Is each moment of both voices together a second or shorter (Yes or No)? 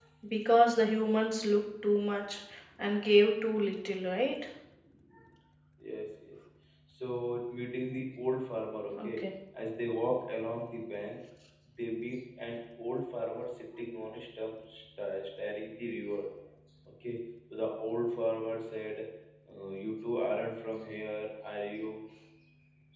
Yes